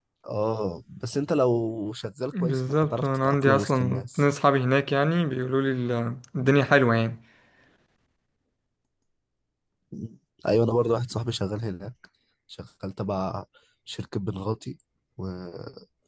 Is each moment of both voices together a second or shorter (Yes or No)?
No